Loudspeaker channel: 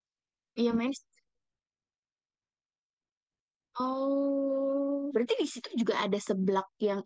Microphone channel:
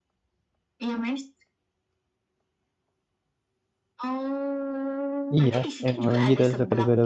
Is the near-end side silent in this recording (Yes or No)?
No